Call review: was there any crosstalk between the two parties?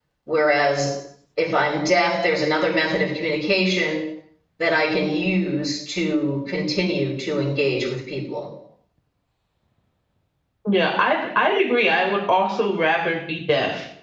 No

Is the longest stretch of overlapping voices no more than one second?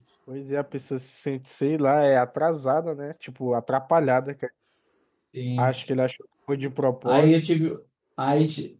Yes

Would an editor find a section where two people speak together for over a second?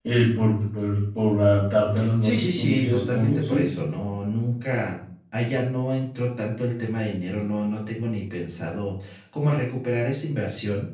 Yes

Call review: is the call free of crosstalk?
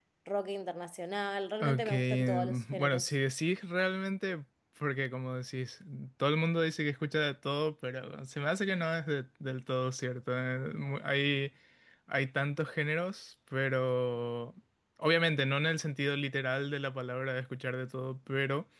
No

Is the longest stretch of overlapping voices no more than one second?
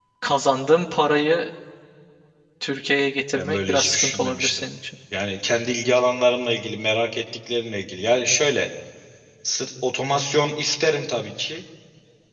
No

